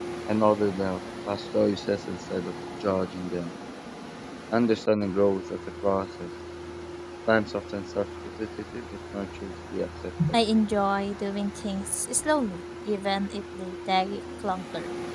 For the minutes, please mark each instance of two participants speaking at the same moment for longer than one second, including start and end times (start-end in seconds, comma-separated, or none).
none